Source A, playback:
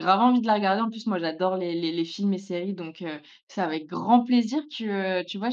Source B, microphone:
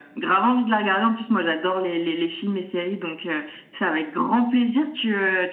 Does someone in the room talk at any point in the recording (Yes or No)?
No